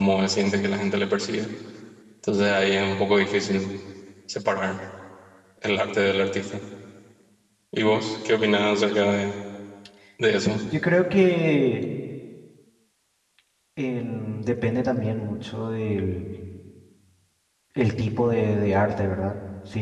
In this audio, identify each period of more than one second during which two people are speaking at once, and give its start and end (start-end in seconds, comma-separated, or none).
none